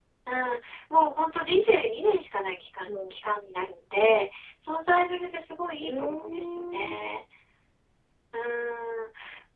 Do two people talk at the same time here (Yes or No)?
Yes